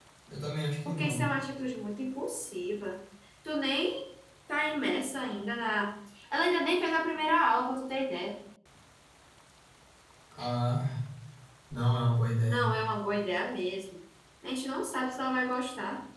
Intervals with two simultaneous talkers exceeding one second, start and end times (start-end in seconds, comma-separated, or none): none